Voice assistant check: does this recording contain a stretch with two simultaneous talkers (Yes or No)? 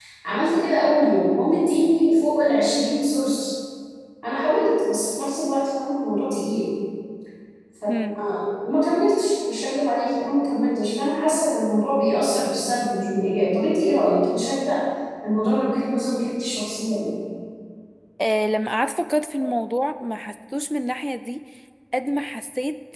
No